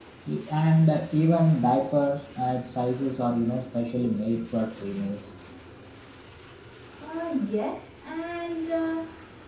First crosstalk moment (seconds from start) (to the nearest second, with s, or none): none